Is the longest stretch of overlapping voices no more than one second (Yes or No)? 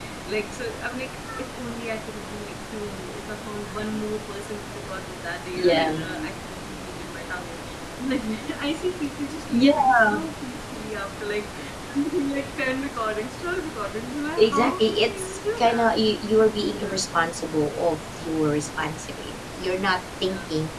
No